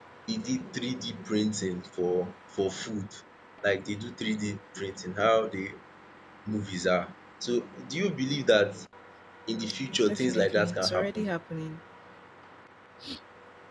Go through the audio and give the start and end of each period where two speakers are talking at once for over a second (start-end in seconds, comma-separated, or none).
10.1-11.3